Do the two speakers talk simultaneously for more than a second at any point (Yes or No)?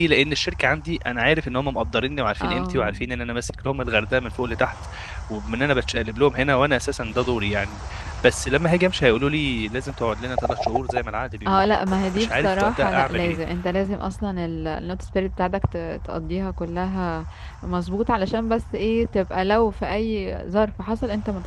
Yes